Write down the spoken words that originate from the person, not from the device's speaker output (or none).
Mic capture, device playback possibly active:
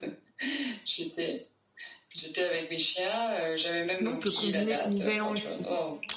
Sinon, on peut combiner nouvel an aussi.